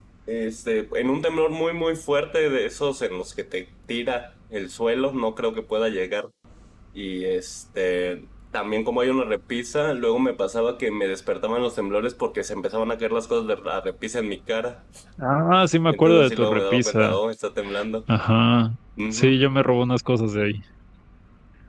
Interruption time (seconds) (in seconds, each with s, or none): 15.9 s